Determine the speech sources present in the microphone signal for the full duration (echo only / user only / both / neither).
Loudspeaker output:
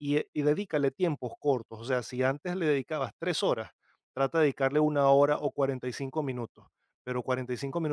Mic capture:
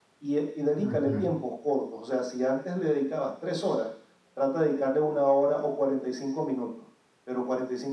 both